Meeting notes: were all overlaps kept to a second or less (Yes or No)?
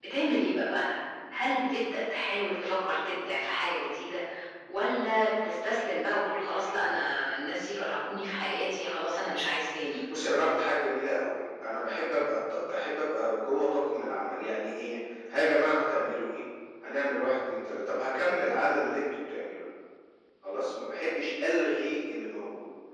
Yes